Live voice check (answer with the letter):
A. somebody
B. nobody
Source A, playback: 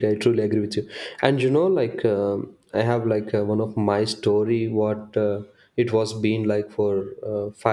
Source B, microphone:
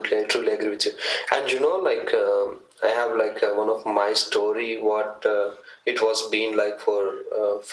B